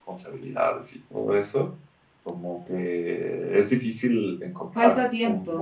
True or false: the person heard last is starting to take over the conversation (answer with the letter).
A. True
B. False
B